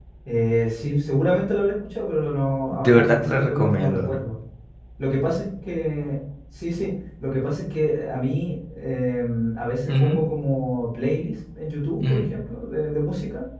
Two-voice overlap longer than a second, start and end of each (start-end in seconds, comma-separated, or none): 2.7-4.1